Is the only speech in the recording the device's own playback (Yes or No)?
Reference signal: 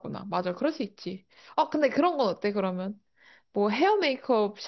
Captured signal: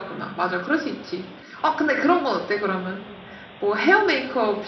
Yes